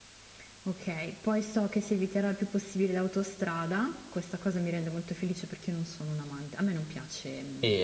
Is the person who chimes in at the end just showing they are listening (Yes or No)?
No